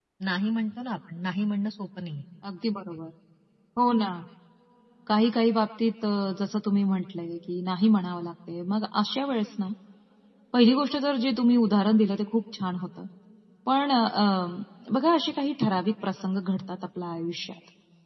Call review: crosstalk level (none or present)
none